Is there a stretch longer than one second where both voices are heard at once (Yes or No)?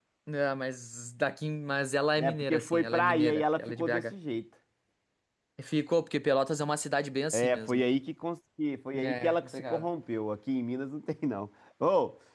Yes